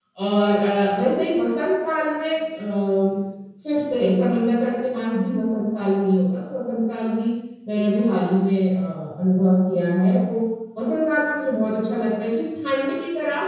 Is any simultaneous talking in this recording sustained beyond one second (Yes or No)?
No